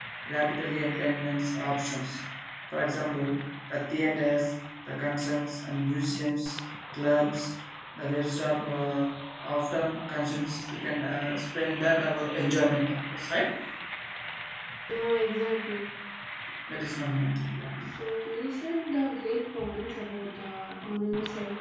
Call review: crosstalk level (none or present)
none